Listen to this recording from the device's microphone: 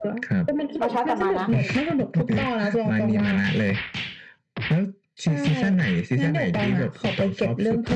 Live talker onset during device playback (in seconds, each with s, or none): 0.8 s